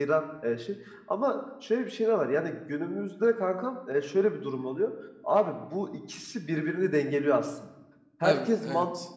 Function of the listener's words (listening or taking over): listening